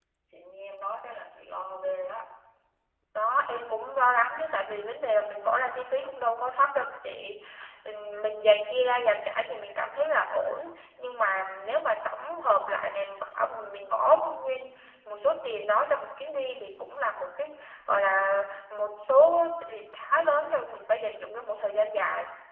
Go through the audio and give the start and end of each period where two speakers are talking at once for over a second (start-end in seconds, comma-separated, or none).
none